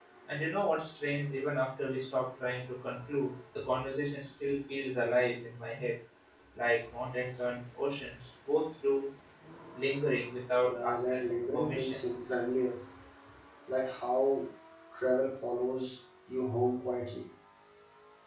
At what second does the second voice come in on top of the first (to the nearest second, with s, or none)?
11 s